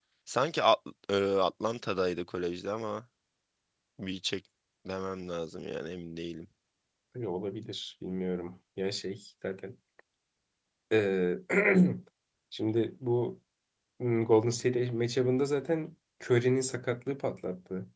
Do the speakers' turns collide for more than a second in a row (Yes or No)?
No